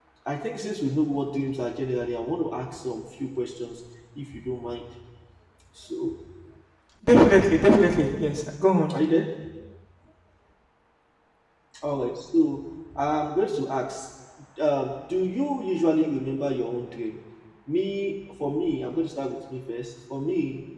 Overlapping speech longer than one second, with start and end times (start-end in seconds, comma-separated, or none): none